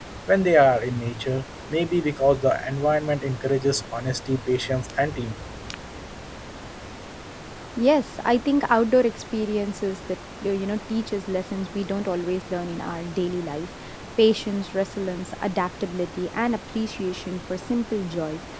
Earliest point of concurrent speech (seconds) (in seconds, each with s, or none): none